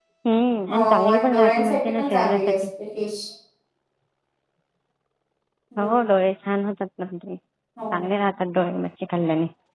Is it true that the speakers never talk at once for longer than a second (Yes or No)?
No